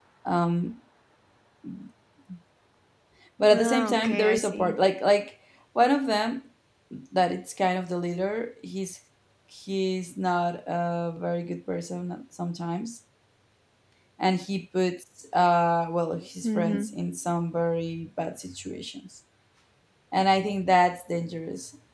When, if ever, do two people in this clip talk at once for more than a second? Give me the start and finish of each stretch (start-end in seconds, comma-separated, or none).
3.5-4.7